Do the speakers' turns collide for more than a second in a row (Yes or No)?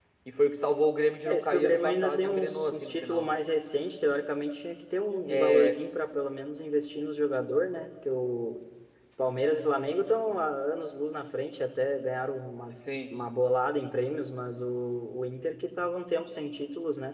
Yes